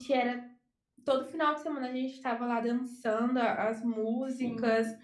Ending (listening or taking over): taking over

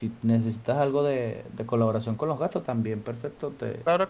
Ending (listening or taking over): taking over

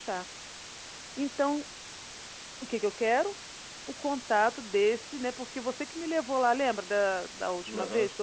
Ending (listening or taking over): taking over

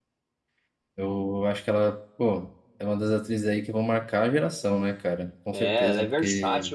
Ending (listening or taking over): taking over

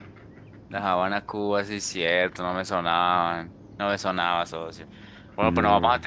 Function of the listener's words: listening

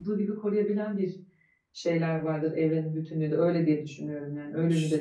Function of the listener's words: taking over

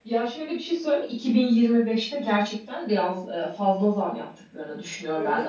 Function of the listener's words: listening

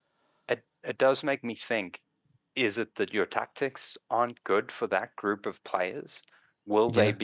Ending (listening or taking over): listening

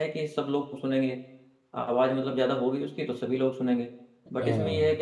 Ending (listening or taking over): listening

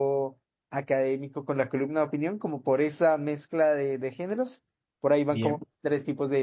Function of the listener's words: listening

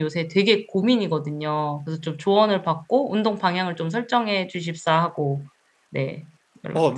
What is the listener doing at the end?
taking over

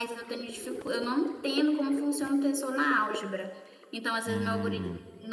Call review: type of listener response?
listening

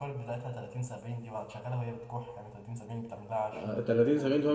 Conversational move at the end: taking over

